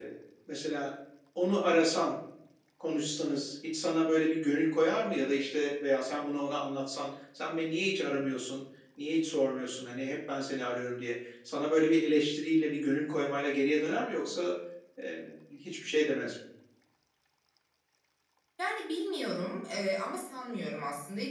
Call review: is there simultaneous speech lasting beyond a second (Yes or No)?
No